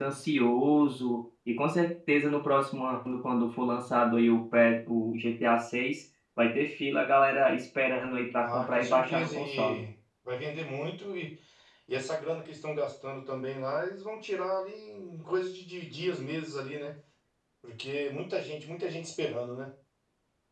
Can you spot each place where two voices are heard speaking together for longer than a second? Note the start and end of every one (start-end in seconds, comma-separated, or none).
8.4-9.8